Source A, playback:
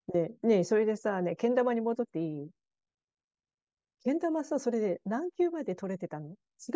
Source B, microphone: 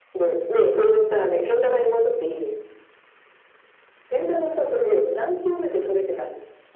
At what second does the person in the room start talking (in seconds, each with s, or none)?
none